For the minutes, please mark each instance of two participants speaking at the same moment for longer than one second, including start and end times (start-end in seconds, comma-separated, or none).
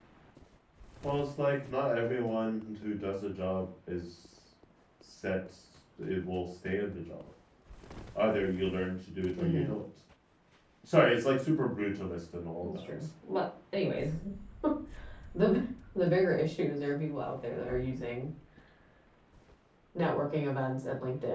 none